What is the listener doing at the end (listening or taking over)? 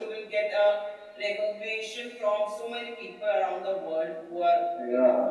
taking over